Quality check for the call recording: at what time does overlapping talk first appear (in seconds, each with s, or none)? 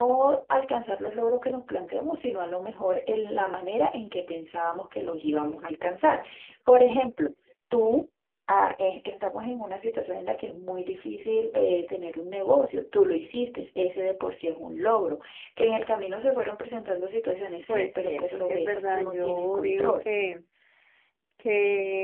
17.7 s